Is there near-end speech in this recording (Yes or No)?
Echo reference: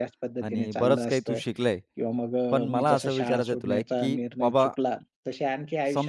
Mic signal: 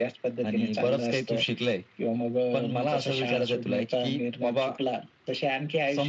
No